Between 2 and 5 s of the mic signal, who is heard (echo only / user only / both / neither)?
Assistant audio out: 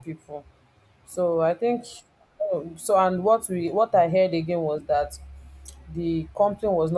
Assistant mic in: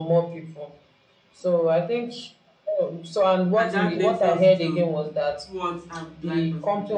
both